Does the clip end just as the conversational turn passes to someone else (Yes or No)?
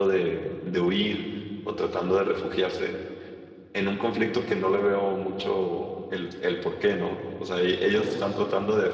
No